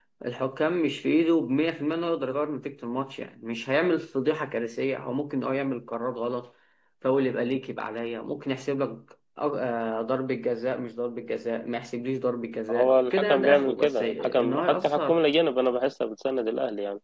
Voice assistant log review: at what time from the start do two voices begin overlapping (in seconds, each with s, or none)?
12.7 s